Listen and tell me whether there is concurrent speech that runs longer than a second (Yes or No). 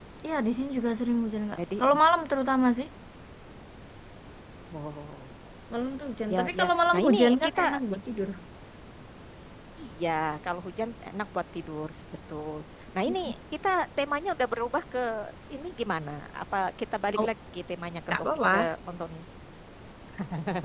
Yes